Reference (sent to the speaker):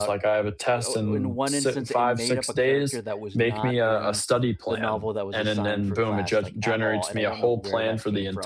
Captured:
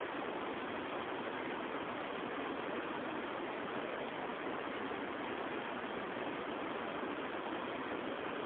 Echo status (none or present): none